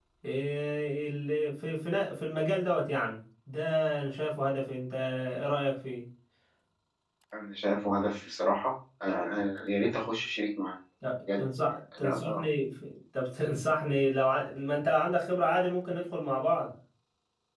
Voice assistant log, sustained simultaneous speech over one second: none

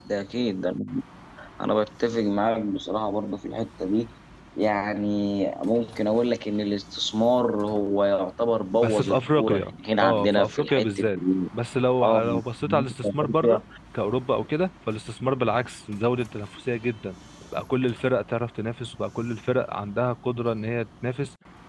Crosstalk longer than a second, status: present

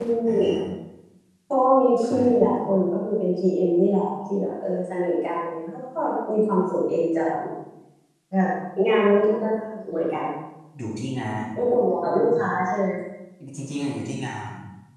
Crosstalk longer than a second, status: none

